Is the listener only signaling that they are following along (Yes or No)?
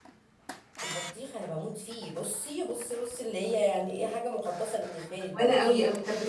No